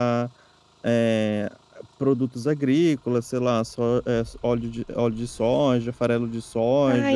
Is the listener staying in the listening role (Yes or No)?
No